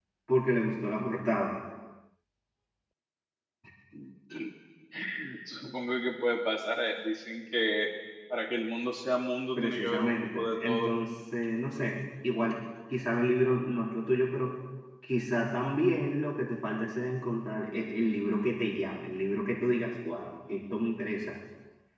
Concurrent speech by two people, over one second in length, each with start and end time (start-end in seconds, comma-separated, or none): 9.6-10.9